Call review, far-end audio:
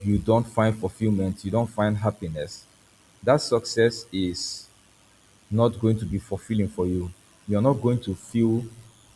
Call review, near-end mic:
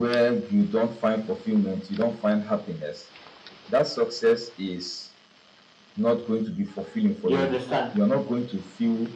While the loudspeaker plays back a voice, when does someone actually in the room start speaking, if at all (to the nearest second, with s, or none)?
7 s